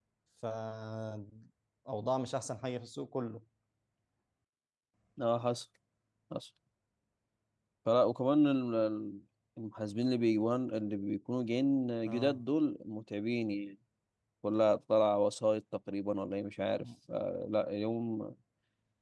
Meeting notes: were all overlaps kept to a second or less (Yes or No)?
Yes